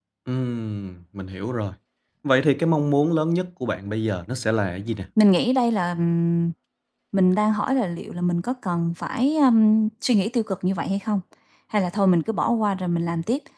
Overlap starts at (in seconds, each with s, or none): none